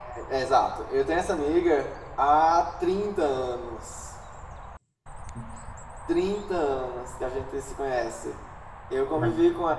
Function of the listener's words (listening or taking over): listening